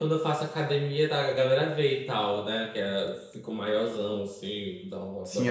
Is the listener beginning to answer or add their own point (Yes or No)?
Yes